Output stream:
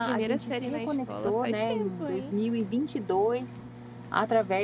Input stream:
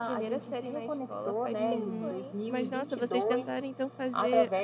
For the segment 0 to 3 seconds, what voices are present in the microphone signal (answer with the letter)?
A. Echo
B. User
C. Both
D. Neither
C